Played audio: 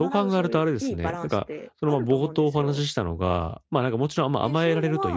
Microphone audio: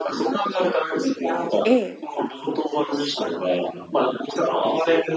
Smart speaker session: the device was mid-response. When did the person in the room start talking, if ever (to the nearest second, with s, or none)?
2 s